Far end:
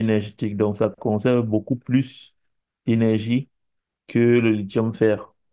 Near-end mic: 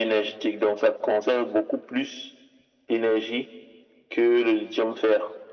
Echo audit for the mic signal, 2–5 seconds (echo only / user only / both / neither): echo only